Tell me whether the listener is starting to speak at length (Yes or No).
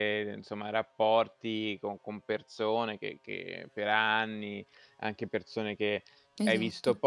No